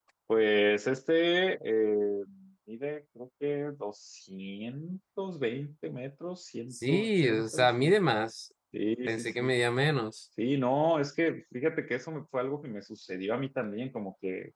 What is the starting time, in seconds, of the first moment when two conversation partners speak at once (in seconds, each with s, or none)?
6.7 s